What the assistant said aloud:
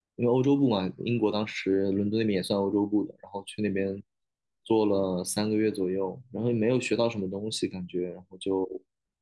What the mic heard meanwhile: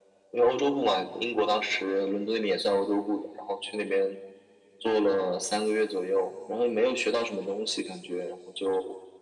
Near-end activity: none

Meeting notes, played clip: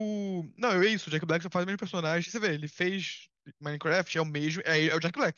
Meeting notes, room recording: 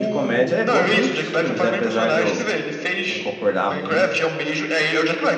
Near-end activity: present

